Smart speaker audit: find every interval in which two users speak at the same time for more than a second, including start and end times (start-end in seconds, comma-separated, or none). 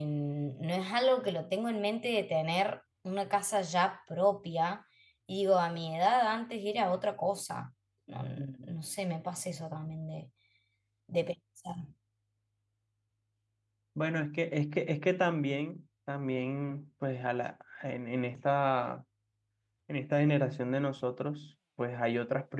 none